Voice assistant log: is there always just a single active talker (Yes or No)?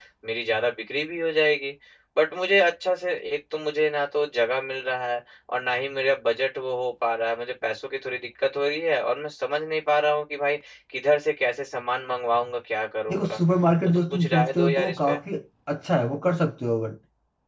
No